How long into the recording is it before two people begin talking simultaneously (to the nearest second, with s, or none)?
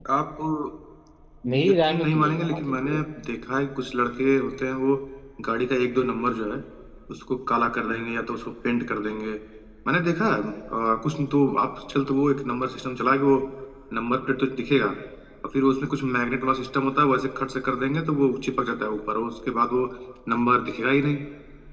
2 s